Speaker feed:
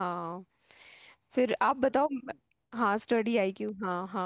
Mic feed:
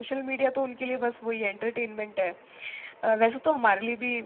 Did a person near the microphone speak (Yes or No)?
Yes